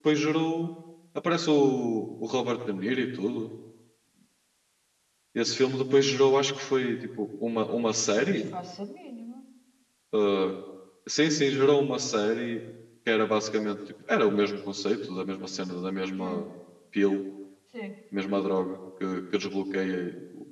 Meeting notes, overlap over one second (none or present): none